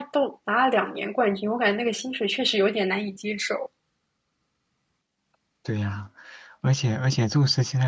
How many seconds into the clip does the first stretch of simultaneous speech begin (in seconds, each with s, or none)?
none